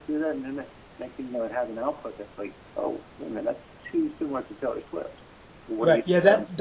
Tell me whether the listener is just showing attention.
No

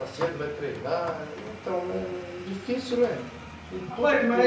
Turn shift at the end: Yes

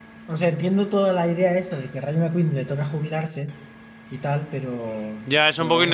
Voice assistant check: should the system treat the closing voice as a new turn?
Yes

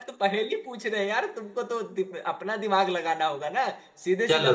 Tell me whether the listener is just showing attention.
Yes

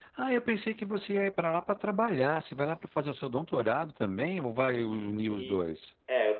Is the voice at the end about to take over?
Yes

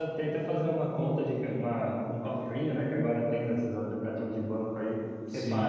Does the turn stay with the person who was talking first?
Yes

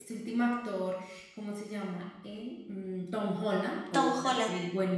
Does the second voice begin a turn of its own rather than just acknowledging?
No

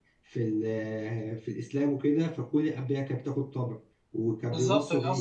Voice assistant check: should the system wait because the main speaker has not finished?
No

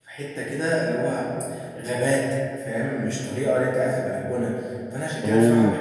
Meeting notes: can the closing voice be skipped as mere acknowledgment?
Yes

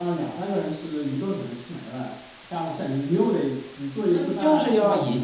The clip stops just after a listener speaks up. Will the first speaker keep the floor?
No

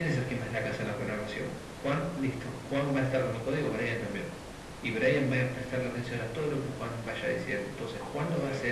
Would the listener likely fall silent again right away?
Yes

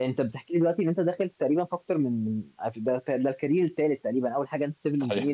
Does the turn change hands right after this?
No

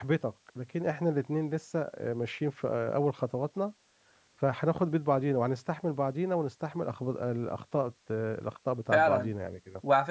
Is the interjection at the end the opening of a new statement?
Yes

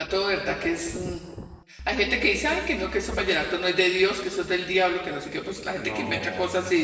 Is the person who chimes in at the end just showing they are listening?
Yes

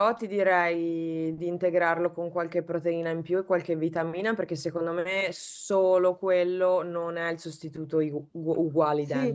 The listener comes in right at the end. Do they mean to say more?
Yes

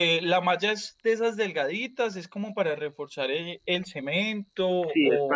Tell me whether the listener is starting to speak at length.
Yes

